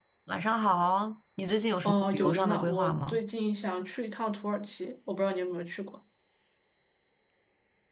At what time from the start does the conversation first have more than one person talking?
1.8 s

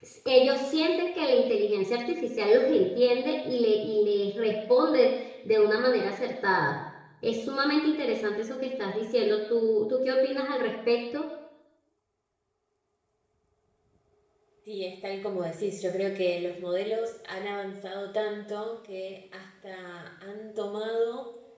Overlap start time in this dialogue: none

